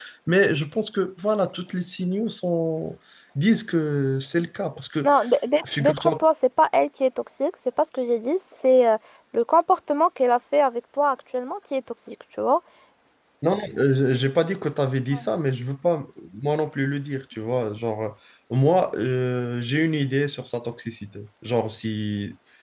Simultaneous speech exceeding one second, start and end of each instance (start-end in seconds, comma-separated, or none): none